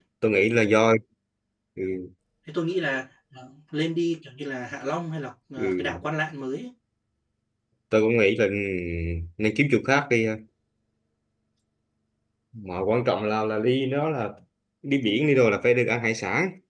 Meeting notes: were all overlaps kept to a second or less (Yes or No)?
Yes